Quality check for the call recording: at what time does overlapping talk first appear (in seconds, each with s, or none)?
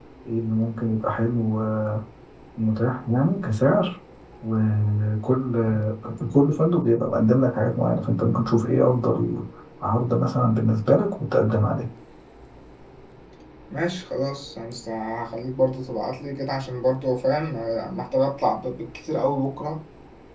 none